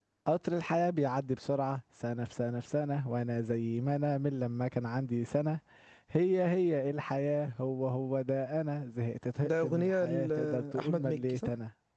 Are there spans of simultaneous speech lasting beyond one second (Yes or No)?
Yes